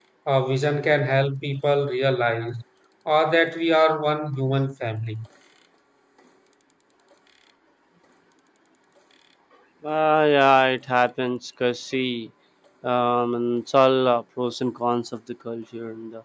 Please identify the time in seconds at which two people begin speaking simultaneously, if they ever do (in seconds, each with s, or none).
none